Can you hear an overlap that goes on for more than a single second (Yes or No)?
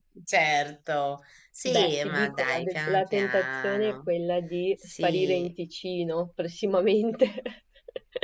Yes